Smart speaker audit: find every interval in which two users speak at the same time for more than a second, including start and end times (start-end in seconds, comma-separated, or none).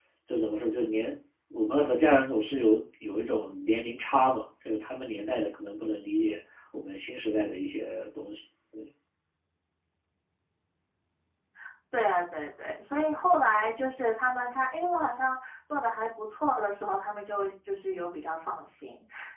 none